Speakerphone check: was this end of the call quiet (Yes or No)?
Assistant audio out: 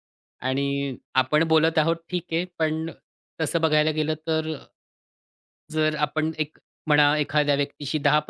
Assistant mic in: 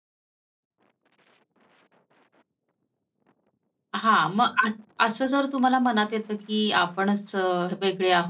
No